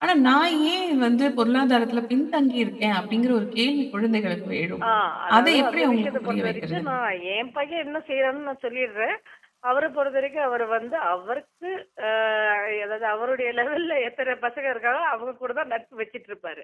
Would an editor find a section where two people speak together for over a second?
Yes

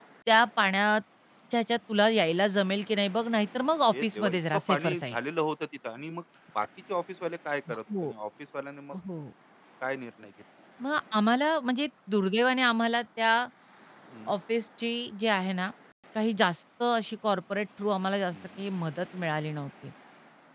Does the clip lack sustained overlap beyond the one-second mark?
No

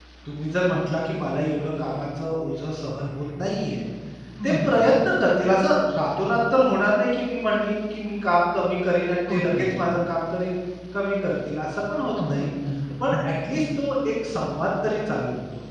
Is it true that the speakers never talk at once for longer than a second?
Yes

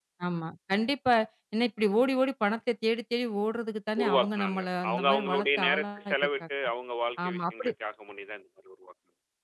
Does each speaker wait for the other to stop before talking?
No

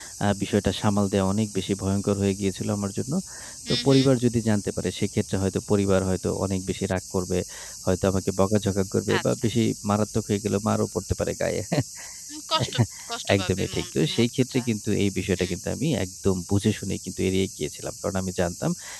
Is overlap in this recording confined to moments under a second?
No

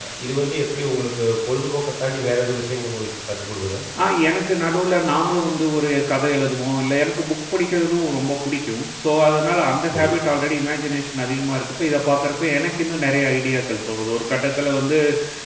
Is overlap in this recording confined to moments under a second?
Yes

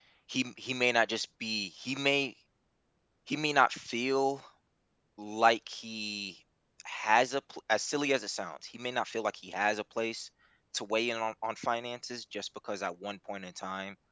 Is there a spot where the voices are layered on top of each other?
No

